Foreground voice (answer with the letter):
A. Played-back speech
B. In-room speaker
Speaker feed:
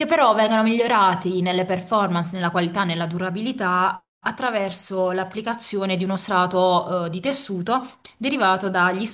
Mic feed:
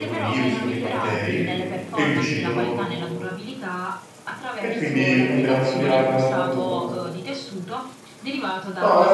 B